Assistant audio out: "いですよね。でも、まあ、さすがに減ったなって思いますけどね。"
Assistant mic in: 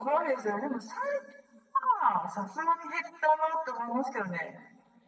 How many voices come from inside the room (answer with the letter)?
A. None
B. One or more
A